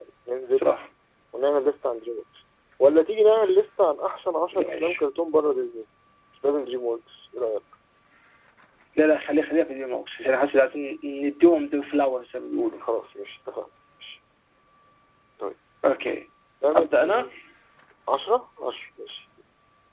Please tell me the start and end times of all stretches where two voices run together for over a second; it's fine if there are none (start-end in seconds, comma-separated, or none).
none